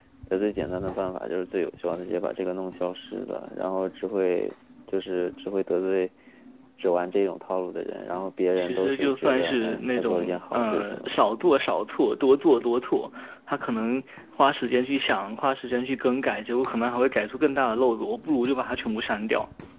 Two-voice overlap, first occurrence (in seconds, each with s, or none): 8.6 s